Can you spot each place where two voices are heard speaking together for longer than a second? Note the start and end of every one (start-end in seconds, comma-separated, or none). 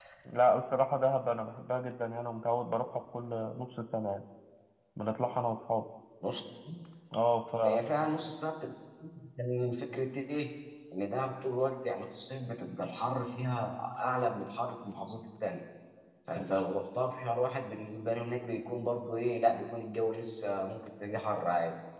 none